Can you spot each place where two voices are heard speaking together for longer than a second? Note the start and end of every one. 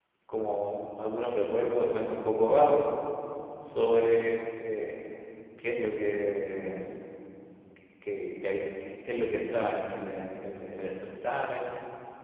none

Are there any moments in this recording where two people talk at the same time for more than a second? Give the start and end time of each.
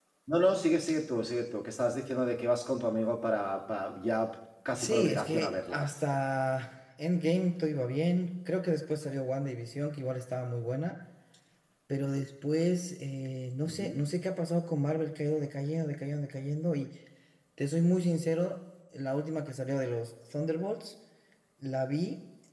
4.8-6.0

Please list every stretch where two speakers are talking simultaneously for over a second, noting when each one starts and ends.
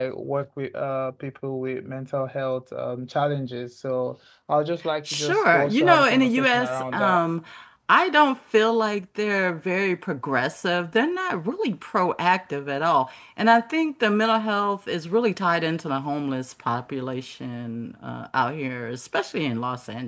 5.0-7.2

